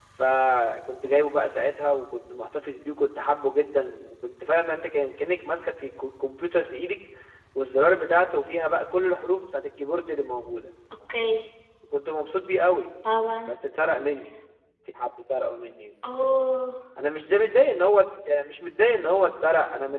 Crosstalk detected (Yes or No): No